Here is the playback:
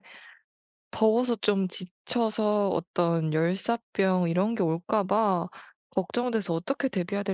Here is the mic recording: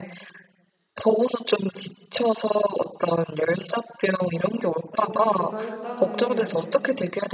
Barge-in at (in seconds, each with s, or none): 5.0 s